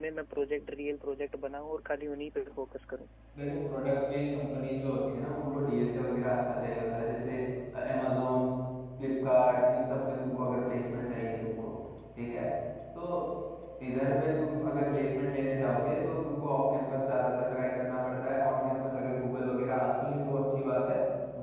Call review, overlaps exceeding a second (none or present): none